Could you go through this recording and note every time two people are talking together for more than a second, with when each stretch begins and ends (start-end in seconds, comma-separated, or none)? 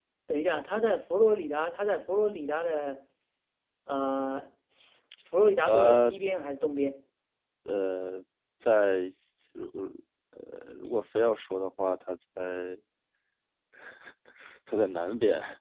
none